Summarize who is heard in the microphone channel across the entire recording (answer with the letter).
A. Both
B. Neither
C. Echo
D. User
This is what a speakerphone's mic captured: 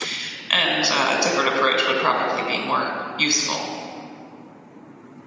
D